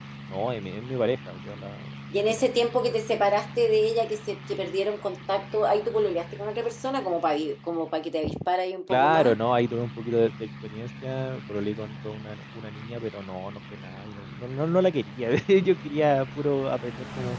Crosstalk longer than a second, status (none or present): none